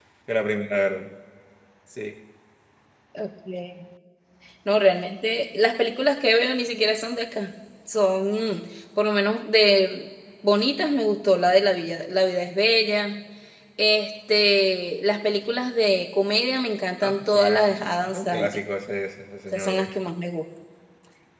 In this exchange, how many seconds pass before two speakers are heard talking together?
17 s

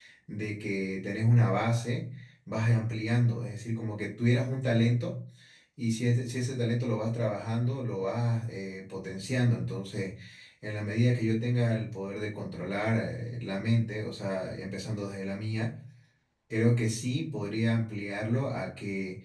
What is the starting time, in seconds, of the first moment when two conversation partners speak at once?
none

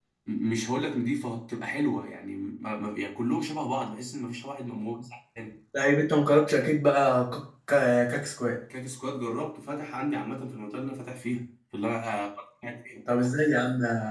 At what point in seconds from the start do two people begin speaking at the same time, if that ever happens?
none

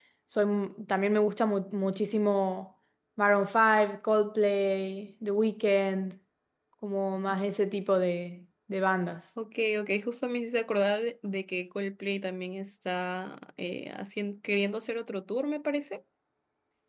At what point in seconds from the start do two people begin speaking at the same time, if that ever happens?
none

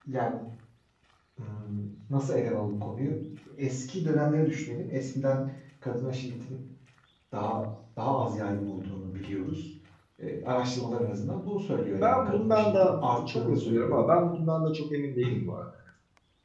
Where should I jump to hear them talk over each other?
12 s

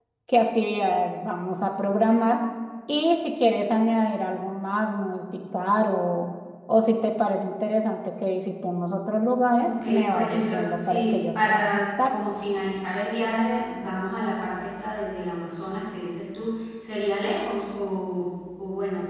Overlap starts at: 10 s

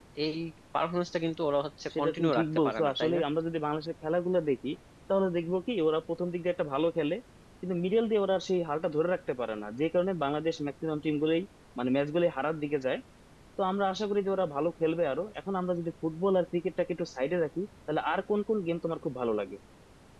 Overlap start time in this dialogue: 2 s

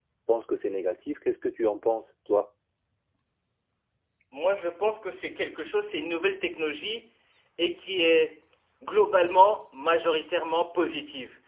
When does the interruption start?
none

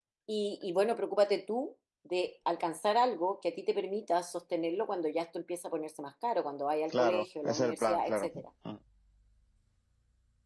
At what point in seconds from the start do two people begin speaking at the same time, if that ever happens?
7 s

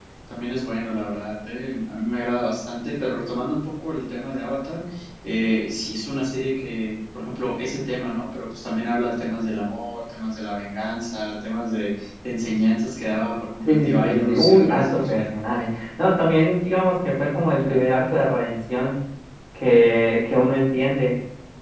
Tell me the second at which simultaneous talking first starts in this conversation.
14 s

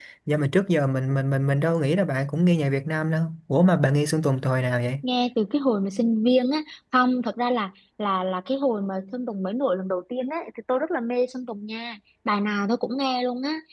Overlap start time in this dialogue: none

